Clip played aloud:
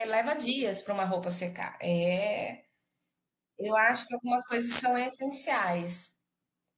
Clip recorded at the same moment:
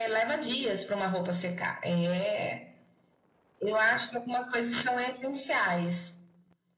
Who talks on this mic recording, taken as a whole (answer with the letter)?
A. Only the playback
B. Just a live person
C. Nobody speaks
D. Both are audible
A